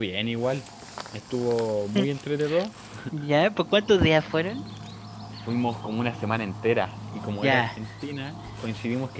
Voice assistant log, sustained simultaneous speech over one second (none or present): none